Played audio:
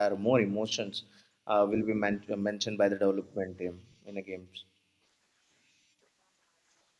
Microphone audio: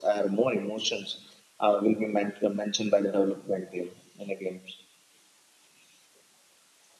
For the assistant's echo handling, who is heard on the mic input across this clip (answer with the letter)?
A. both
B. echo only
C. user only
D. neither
B